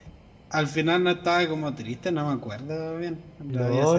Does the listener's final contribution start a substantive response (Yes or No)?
Yes